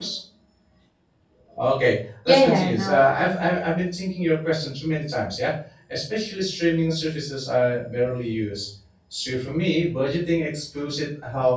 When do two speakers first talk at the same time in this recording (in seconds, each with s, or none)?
2.3 s